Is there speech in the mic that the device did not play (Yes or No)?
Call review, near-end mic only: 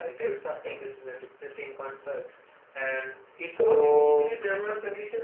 Yes